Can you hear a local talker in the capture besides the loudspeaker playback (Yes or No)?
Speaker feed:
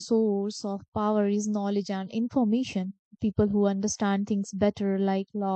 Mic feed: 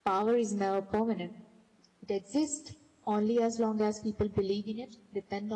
Yes